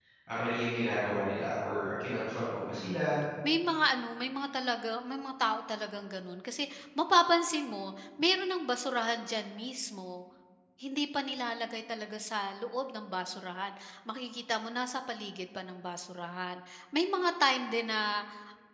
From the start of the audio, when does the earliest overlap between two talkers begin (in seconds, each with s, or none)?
none